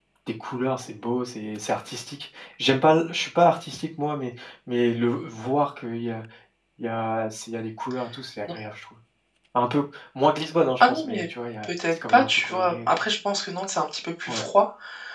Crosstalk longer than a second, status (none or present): present